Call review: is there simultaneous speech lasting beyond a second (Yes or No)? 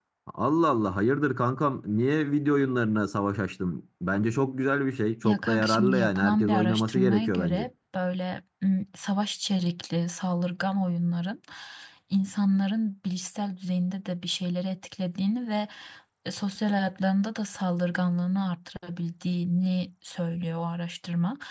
Yes